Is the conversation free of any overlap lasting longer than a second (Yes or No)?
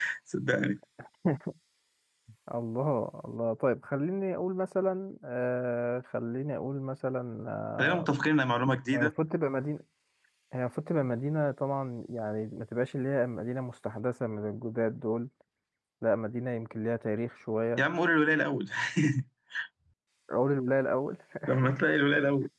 Yes